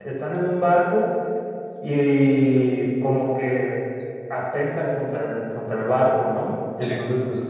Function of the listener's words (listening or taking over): listening